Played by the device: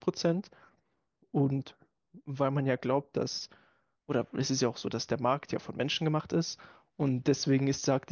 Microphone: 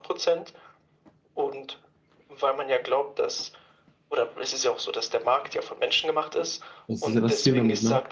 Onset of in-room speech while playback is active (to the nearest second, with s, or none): 7 s